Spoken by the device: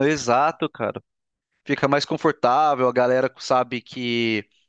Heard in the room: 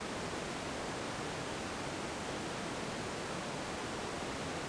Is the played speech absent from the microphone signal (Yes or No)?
Yes